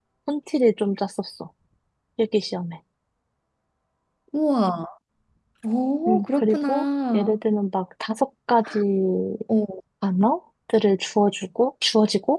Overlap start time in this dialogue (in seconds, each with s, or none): 6.1 s